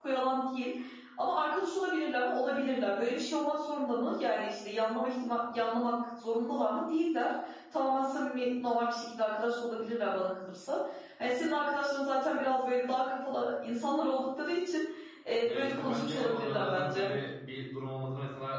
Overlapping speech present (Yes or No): Yes